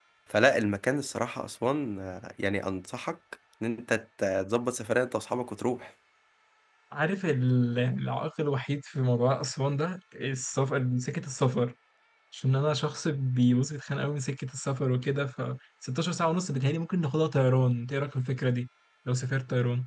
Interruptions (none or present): none